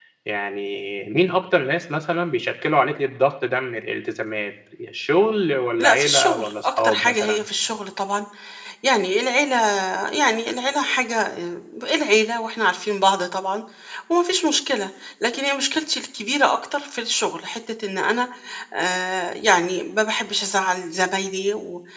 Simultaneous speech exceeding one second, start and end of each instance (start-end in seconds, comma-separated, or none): 5.8-7.4